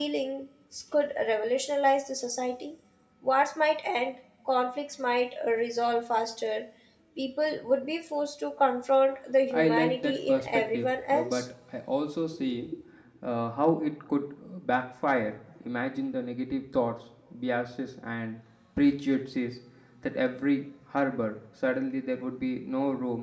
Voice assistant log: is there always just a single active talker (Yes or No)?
No